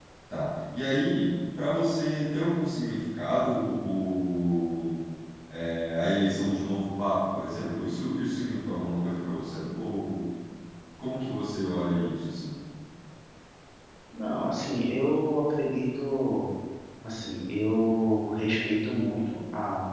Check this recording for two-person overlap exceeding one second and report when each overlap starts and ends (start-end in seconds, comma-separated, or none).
none